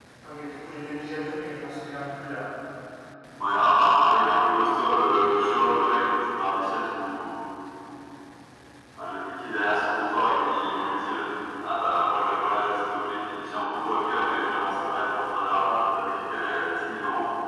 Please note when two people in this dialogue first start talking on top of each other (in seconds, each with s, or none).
none